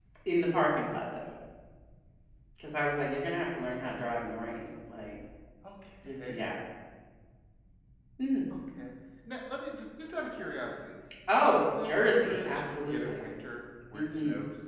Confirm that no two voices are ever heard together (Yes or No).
No